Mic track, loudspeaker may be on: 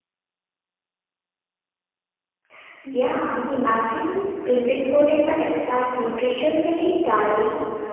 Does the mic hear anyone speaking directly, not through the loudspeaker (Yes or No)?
Yes